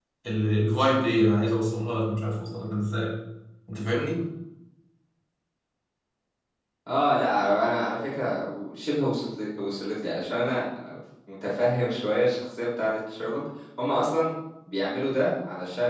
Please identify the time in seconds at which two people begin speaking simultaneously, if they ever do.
none

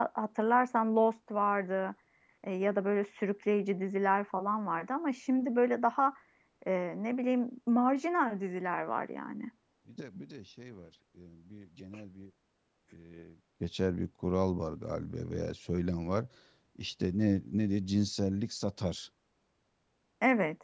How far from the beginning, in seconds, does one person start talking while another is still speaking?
none

